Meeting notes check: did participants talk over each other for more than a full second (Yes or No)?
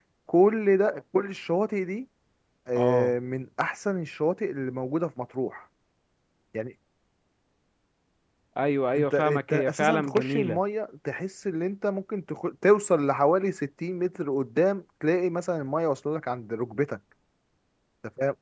Yes